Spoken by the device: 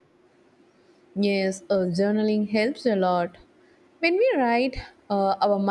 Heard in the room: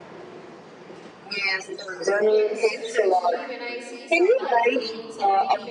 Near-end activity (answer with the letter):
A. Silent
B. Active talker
B